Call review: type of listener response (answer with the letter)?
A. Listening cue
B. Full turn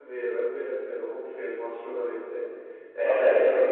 B